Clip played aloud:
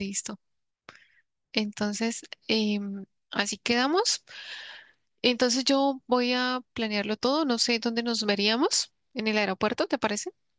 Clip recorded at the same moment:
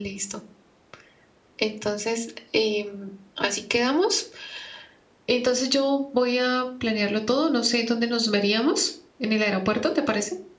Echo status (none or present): present